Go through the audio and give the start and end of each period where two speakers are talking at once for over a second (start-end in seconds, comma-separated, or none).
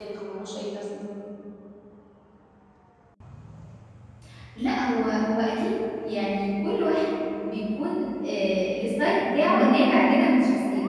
none